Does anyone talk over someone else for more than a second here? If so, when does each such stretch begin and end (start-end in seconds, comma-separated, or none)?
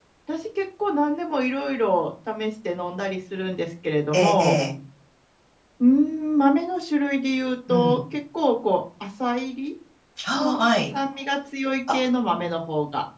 none